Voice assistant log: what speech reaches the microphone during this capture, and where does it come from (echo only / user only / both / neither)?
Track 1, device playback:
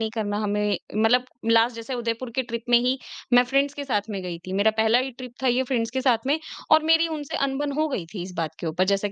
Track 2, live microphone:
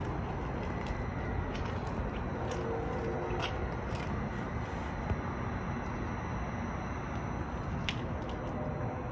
neither